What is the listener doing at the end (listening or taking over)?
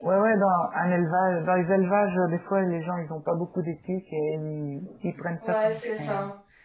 taking over